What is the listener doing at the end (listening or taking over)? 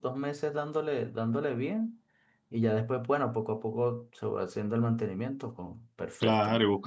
taking over